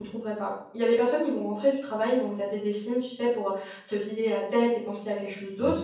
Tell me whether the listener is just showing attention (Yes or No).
Yes